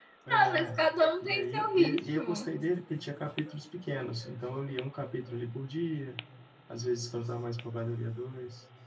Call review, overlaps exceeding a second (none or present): present